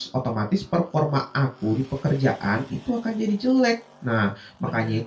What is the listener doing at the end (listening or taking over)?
listening